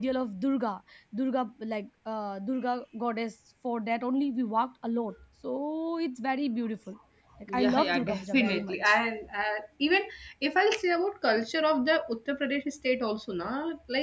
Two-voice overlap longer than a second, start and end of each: 7.5-9.0

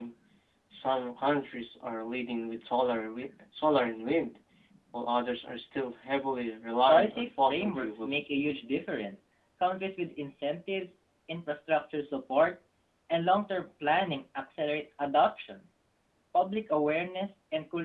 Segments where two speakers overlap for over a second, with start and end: 6.9-8.2

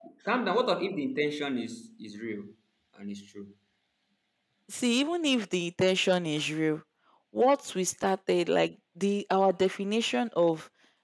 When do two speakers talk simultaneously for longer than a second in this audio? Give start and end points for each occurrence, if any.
none

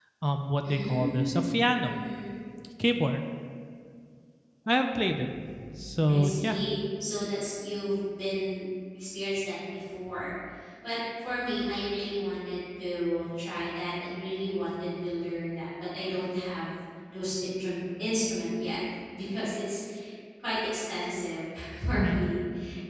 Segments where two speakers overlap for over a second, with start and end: 0.6-1.9

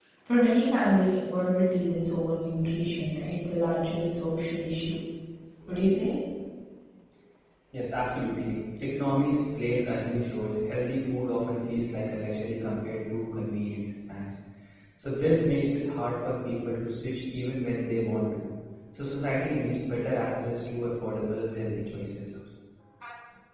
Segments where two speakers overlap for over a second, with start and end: none

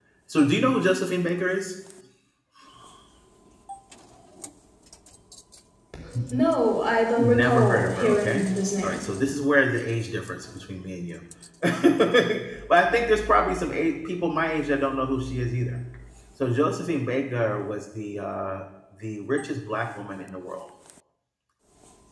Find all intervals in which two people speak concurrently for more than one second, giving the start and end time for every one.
7.2-9.0

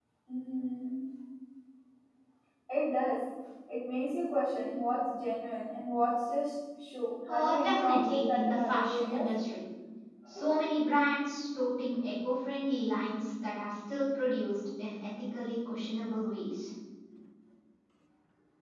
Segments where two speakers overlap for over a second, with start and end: 7.3-9.3

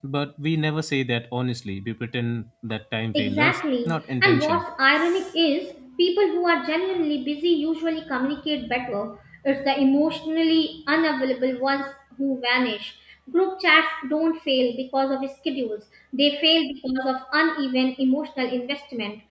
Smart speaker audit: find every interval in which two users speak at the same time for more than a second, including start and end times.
3.1-4.6

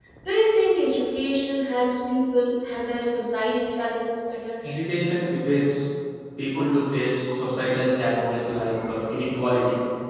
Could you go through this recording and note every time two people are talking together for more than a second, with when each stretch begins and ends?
none

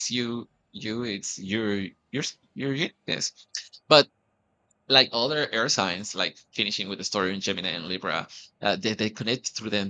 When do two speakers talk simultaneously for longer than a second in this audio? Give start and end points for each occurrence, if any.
none

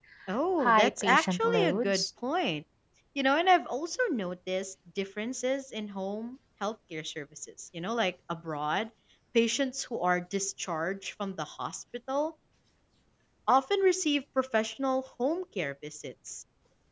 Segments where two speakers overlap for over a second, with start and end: 0.6-2.0

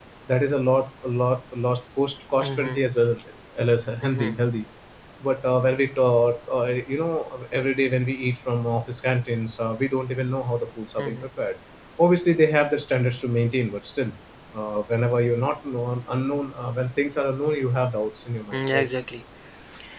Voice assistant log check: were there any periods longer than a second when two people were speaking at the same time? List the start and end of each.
none

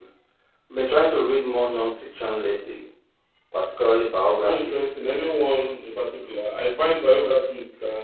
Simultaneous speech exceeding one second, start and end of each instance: none

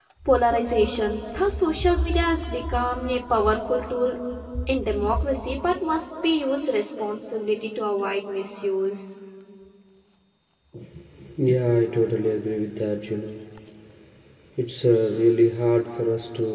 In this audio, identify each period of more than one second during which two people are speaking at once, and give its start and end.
none

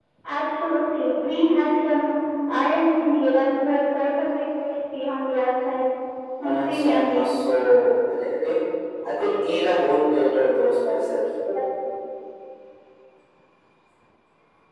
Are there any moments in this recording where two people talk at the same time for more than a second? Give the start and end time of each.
6.4-7.7

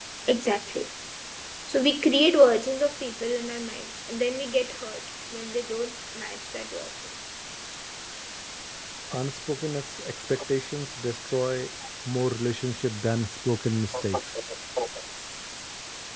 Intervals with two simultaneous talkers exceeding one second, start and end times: none

